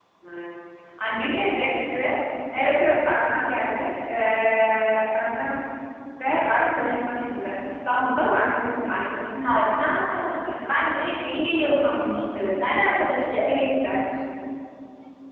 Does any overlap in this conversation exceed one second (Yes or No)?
No